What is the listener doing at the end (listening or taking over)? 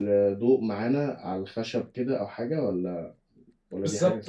taking over